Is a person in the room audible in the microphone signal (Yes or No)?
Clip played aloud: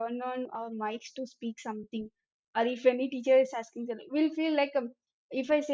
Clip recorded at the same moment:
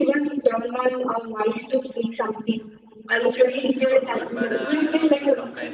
Yes